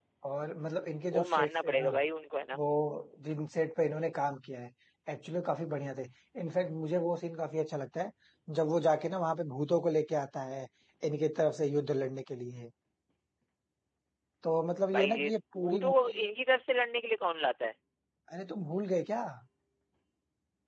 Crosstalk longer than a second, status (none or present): present